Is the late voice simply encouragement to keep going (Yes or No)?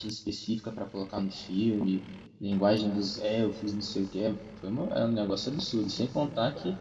Yes